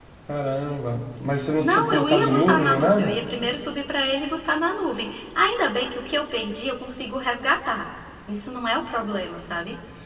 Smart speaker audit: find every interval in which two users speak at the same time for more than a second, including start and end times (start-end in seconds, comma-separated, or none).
1.6-3.2